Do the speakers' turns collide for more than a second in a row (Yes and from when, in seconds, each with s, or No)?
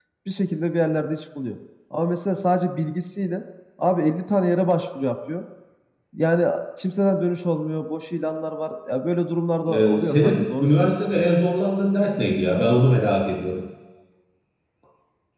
Yes, from 9.7 s